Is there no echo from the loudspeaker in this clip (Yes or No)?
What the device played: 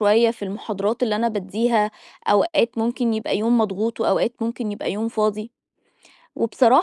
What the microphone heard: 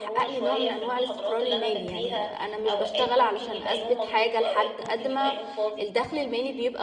No